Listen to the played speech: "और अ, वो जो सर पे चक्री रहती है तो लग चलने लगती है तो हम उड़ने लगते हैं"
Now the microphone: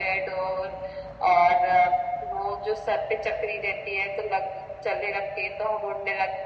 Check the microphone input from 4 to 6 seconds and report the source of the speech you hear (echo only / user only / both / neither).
echo only